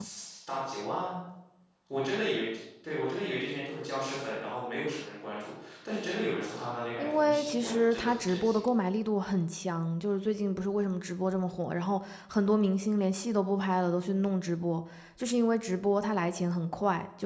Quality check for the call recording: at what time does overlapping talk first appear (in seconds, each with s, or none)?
7.0 s